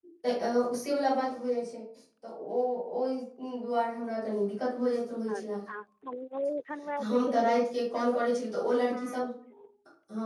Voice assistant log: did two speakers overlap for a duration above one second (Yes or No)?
Yes